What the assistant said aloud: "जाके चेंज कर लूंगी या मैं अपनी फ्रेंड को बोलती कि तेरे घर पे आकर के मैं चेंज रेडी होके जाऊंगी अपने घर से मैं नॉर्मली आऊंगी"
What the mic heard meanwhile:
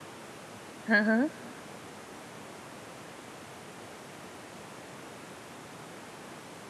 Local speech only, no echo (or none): हाँ, हाँ।